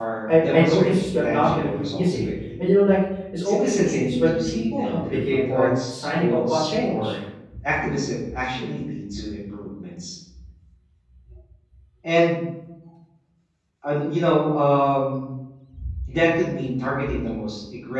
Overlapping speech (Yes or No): Yes